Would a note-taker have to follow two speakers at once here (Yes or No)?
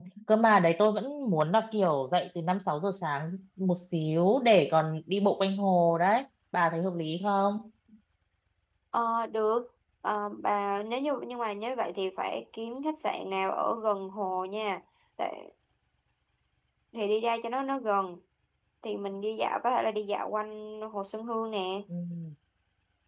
No